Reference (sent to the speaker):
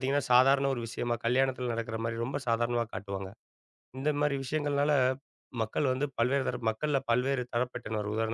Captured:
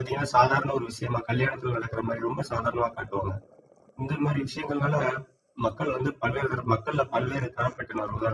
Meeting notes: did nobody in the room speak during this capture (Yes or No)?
Yes